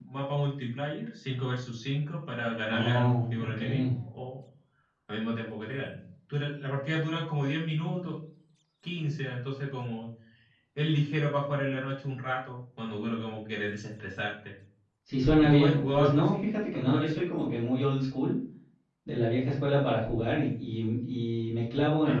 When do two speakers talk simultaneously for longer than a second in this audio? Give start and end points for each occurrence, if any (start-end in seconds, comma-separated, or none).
2.7-3.9, 15.4-17.3